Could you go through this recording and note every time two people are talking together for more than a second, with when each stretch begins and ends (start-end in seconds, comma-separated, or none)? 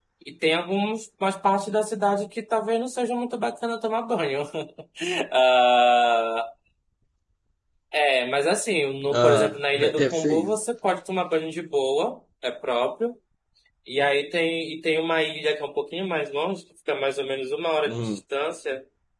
9.1-10.5